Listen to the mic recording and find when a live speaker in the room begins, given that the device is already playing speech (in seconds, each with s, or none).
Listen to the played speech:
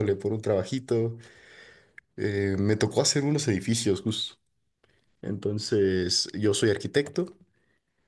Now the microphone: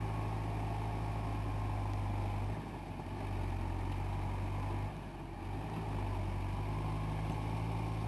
none